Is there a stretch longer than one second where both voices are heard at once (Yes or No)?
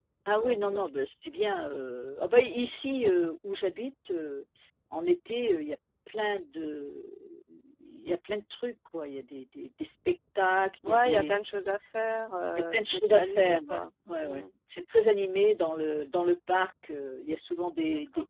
Yes